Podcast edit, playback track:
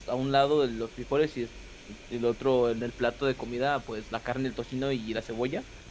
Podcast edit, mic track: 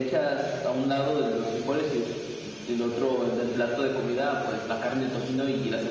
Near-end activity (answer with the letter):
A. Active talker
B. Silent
B